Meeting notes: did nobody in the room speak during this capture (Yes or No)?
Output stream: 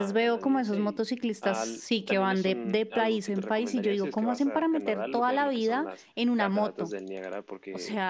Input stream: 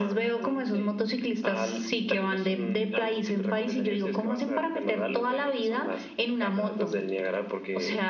Yes